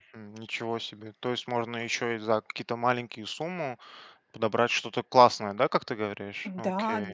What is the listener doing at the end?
taking over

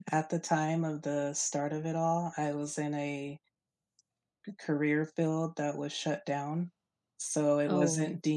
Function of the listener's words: listening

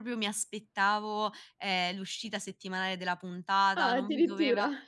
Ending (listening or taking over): listening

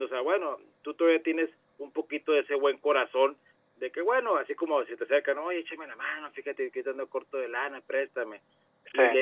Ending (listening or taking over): listening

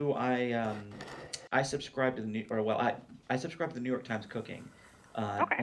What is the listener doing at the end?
listening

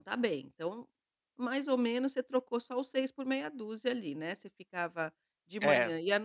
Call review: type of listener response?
listening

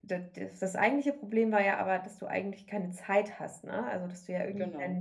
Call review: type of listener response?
listening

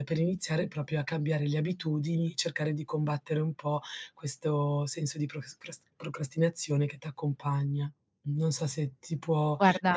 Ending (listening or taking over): listening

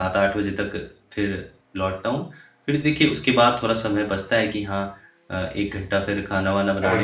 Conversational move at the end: listening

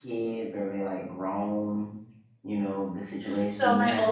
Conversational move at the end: taking over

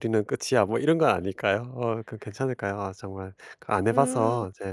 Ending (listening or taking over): taking over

